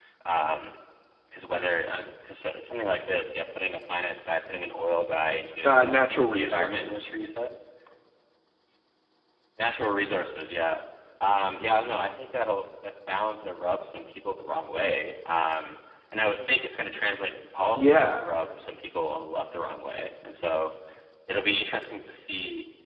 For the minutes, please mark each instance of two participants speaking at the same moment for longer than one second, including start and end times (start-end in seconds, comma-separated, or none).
5.7-7.0